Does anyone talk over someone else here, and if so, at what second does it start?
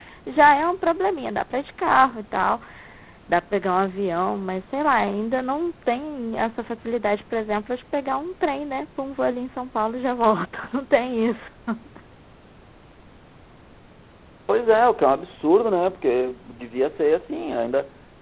none

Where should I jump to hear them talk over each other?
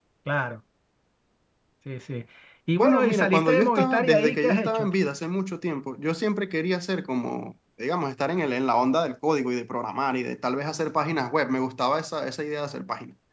2.8 s

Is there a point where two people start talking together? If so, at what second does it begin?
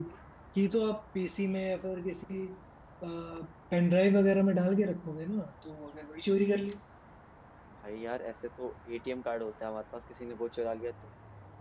none

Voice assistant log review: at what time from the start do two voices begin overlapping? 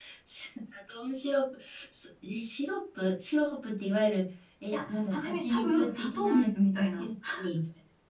4.7 s

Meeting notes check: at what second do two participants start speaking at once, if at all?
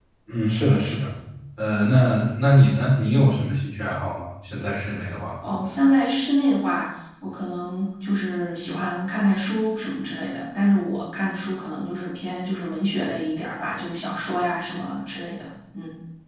none

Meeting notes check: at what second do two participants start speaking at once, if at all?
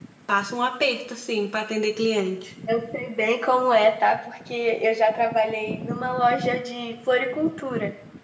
none

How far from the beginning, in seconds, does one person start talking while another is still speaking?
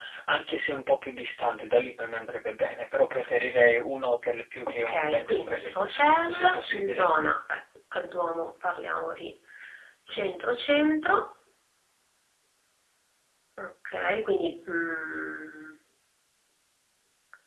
4.9 s

